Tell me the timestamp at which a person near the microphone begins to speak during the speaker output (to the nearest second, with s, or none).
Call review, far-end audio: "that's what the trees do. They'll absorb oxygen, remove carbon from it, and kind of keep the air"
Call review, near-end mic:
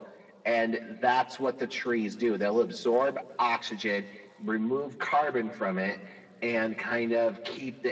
none